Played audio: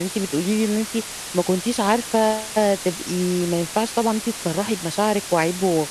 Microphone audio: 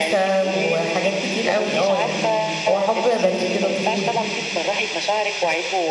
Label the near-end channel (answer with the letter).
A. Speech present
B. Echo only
A